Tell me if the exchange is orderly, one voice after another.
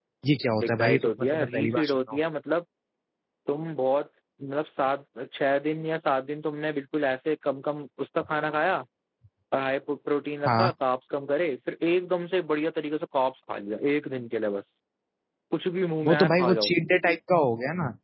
No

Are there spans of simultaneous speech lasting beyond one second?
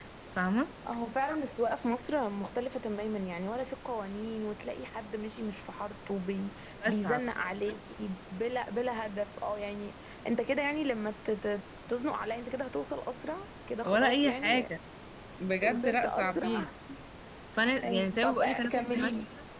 Yes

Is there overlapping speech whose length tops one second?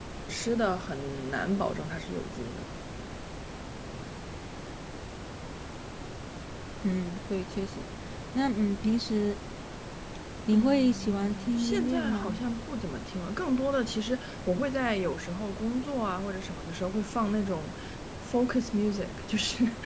Yes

